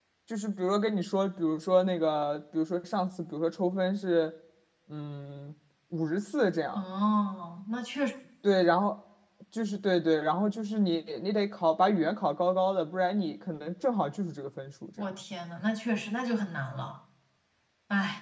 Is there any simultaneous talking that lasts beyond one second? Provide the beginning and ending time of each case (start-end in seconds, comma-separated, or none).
none